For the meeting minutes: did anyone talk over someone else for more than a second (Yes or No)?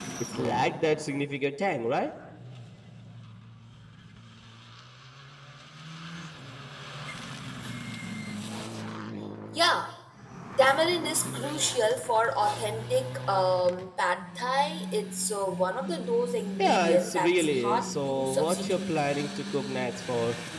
Yes